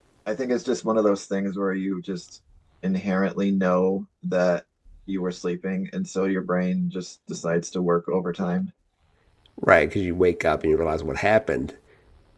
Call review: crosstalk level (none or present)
none